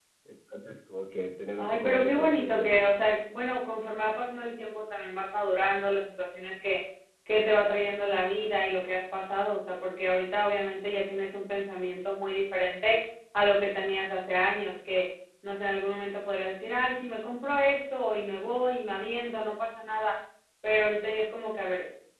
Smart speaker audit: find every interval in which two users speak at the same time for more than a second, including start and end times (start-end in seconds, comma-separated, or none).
1.6-2.9